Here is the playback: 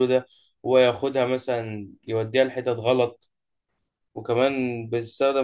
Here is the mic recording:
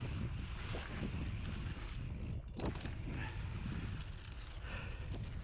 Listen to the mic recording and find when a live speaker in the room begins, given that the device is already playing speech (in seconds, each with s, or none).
none